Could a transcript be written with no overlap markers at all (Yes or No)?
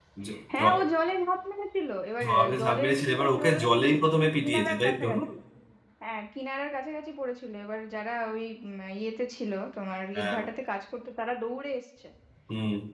No